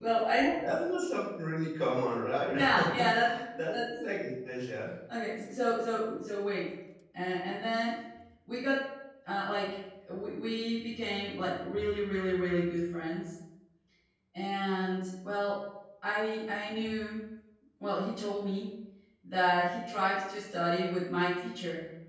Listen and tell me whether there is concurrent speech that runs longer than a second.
No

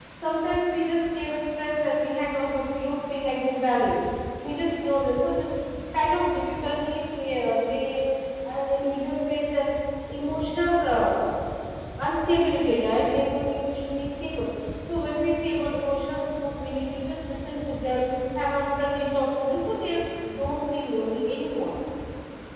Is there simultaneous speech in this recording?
No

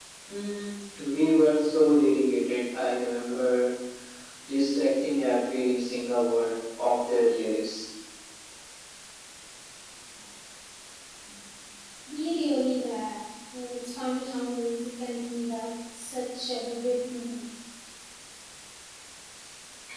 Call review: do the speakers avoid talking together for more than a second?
Yes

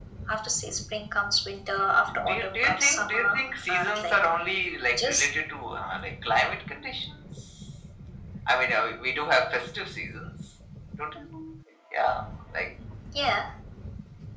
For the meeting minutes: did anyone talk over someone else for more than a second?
Yes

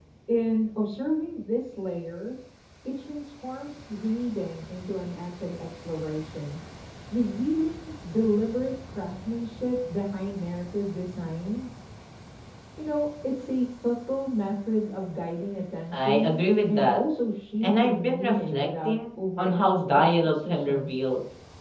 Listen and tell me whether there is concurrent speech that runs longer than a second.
Yes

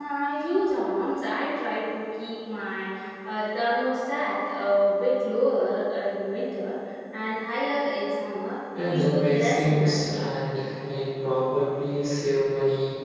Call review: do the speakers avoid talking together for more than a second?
No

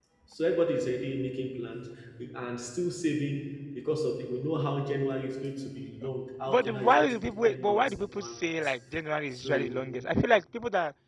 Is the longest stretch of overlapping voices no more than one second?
No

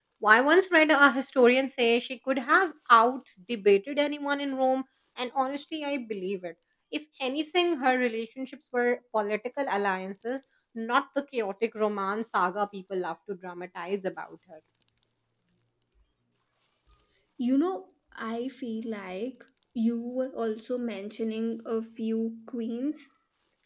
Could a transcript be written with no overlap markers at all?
Yes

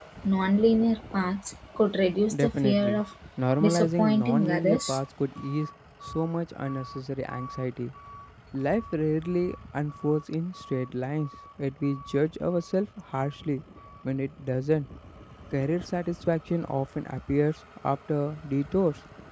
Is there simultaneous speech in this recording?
Yes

